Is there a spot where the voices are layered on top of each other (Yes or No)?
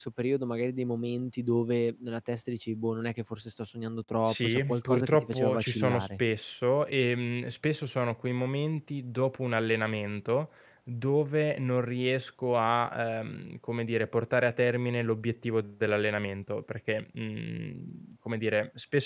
Yes